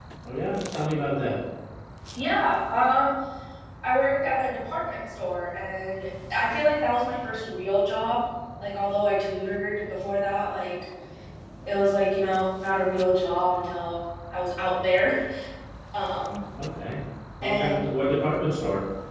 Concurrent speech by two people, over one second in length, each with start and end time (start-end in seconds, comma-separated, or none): none